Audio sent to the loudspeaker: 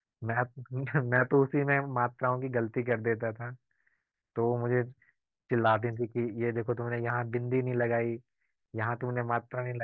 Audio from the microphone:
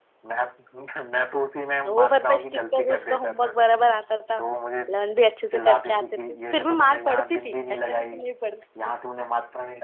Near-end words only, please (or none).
होमवर्क पे स्टिक कर उसका होमवर्क बराबर आता था लर्न भी अच्छे से करके आते थे फिर भी मार पड़ती थी ऐसा नहीं कि नहीं पड़ती थी